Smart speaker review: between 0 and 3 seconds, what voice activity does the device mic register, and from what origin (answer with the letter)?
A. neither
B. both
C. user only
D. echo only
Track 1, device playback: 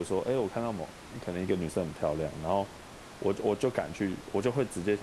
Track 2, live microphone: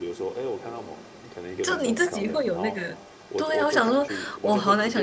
B